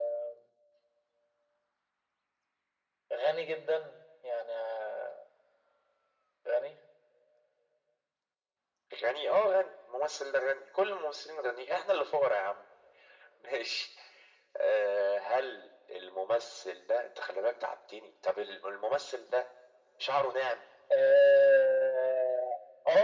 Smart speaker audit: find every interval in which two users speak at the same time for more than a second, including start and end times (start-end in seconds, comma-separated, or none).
none